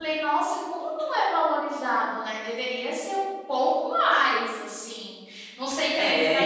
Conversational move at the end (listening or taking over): listening